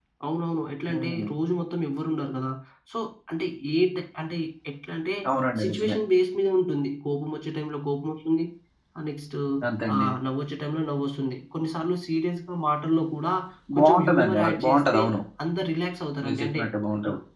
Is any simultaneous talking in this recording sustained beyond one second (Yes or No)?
Yes